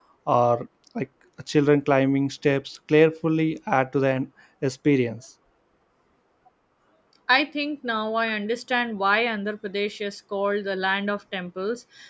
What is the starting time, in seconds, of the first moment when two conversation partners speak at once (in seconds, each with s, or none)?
none